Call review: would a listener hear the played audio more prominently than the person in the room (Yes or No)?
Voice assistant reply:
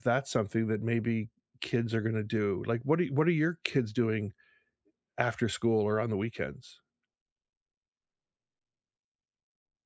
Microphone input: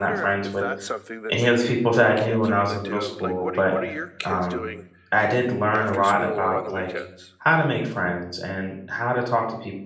No